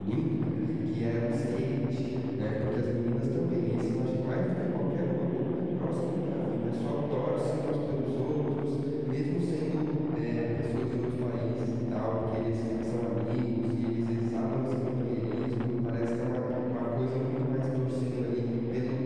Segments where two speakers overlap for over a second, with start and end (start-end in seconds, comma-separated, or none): none